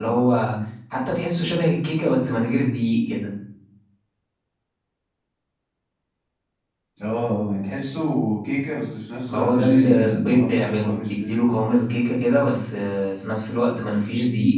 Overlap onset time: 9 s

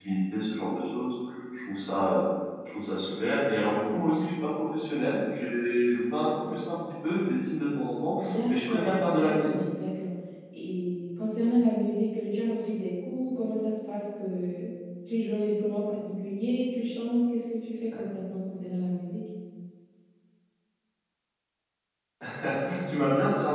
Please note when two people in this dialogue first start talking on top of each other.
8 s

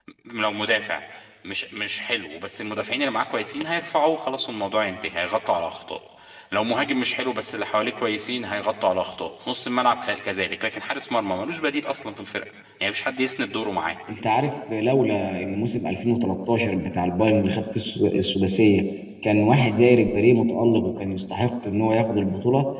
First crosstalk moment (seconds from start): none

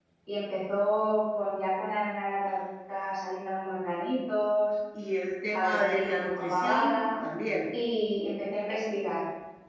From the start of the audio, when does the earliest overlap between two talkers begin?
6 s

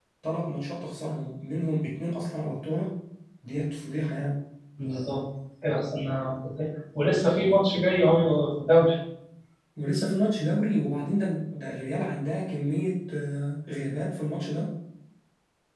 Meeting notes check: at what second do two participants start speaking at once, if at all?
none

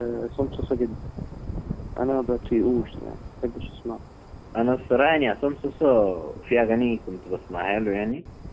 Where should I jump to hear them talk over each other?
none

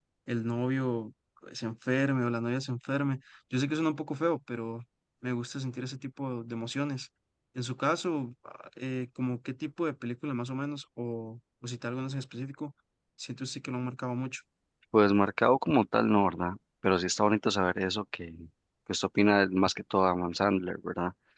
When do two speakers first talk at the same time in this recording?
none

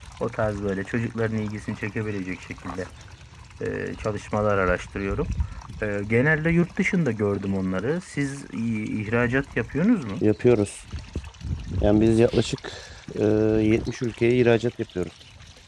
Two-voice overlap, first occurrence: none

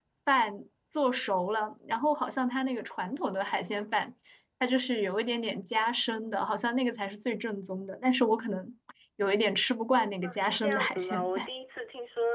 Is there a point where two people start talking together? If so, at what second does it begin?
10 s

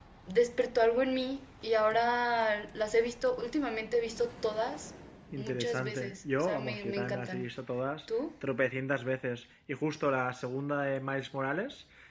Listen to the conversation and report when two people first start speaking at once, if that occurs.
5 s

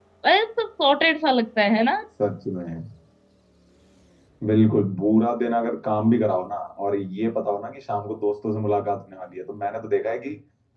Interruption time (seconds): none

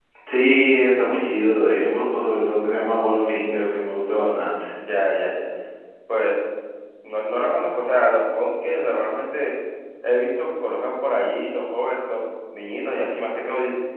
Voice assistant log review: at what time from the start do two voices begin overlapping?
none

